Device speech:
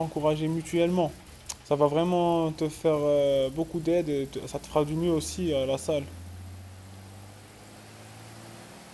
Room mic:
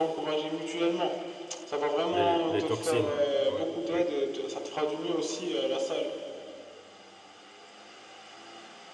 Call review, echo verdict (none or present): present